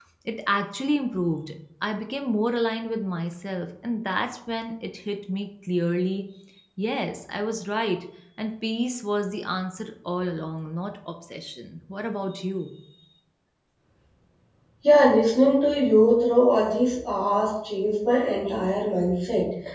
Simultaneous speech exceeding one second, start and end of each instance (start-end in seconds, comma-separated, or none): none